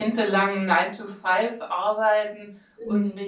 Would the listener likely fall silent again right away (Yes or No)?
Yes